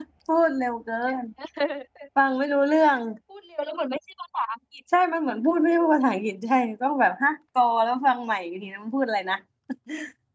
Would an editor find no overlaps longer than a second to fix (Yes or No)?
Yes